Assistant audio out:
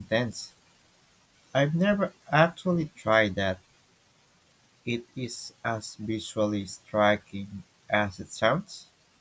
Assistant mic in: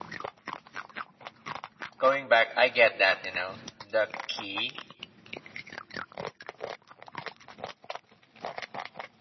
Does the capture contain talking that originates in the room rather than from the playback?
Yes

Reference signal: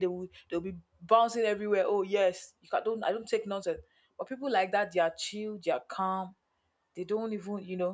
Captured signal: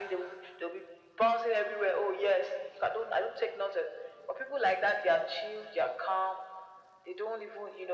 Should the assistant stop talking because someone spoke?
No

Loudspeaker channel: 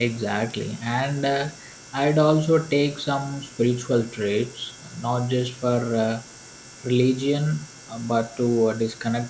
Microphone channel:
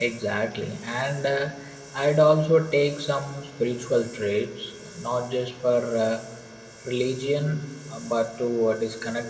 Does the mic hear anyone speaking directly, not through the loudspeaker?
No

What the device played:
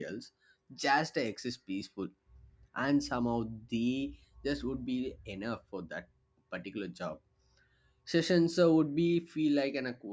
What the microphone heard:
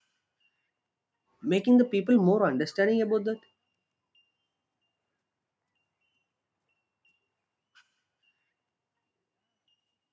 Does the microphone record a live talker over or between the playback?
Yes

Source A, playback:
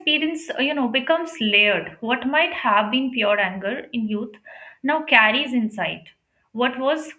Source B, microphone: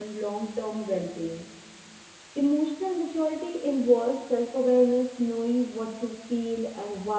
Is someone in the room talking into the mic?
Yes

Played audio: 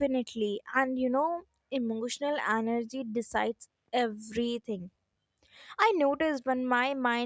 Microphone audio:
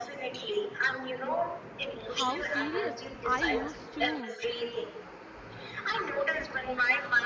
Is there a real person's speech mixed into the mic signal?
Yes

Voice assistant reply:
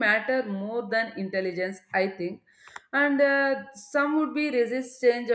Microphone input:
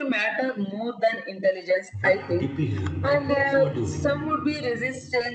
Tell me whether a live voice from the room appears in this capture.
Yes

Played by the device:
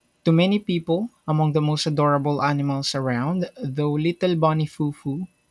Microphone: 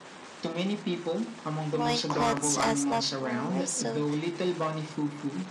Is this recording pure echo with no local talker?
No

